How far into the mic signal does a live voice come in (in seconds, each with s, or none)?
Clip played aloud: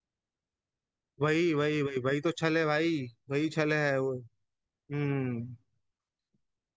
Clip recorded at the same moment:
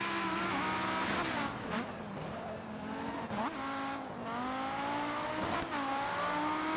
none